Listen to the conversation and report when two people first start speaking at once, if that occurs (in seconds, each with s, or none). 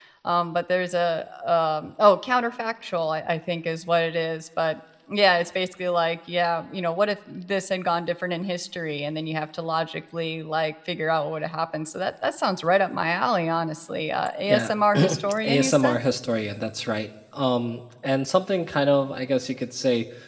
14.5 s